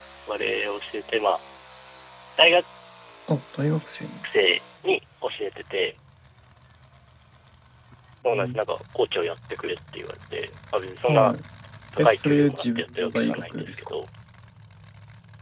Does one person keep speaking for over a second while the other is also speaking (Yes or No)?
Yes